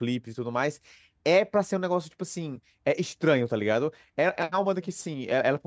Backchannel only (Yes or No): Yes